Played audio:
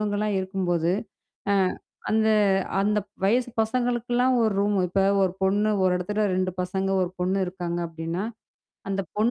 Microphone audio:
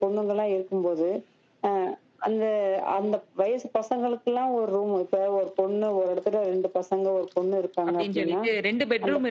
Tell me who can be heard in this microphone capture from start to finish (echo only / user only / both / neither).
both